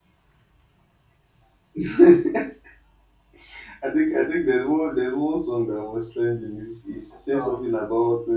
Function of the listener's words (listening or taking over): listening